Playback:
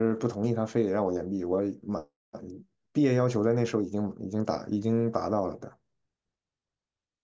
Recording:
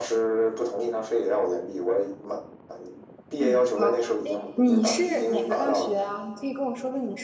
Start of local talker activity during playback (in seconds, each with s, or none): 3.4 s